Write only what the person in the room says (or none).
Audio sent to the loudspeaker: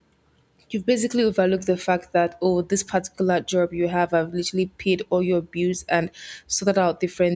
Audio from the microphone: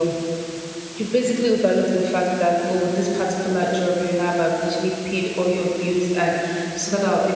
none